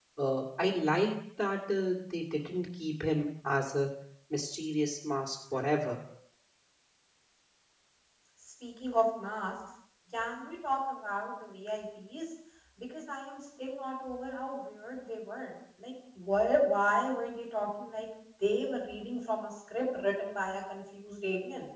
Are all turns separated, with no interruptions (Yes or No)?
Yes